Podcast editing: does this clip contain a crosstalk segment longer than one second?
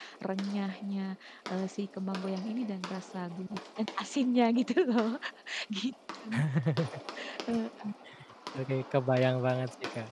No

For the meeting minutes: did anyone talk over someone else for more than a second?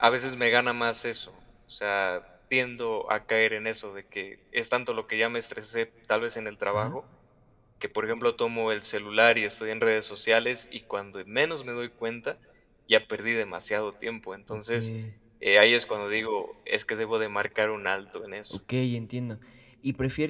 No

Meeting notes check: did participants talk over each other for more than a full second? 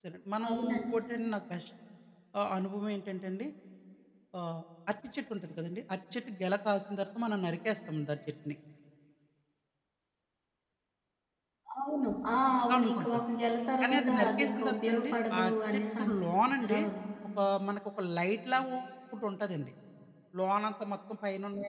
Yes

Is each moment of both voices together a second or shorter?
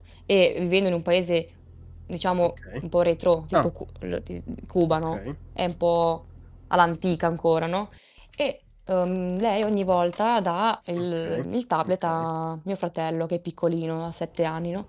Yes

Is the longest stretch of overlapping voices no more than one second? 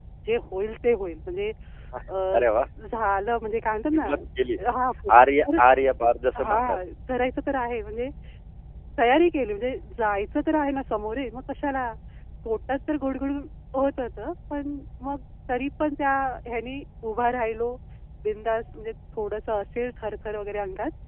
Yes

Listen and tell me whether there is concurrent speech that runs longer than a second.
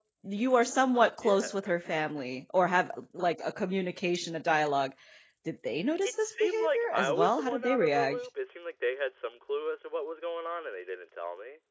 Yes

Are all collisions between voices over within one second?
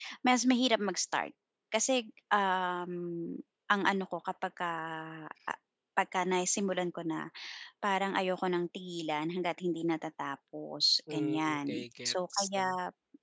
No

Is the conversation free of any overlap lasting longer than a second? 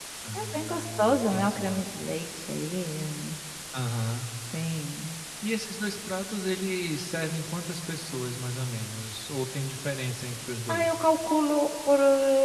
No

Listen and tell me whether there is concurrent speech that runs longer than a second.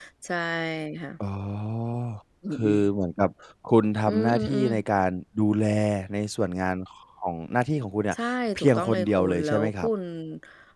Yes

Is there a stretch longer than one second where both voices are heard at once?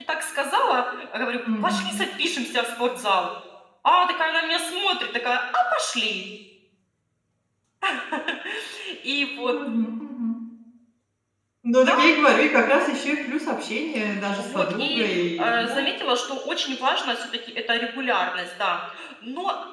Yes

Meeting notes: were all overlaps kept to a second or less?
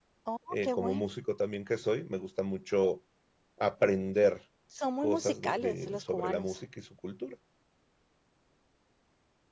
No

